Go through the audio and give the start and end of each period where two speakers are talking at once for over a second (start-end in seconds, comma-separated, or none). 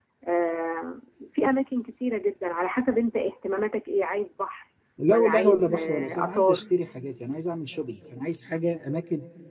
5.1-6.6